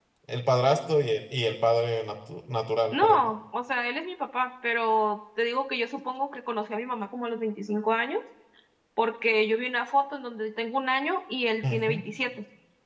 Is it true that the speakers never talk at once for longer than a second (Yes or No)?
Yes